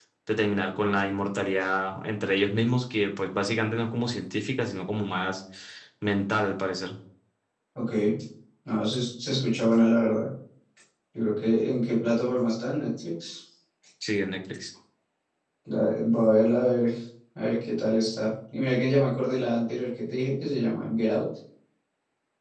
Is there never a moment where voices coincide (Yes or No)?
Yes